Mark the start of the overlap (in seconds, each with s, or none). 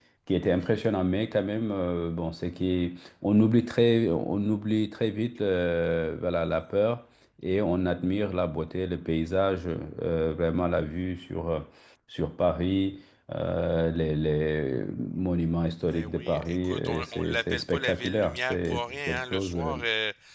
15.9 s